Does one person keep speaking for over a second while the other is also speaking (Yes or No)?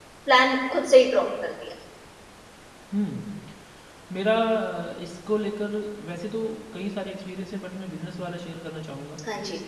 No